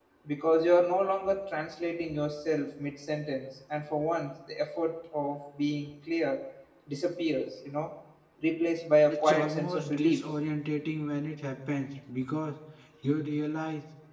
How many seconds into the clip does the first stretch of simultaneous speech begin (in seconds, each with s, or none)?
9.1 s